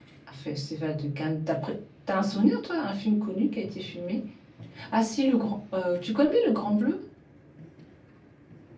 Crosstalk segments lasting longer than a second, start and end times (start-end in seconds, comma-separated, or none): none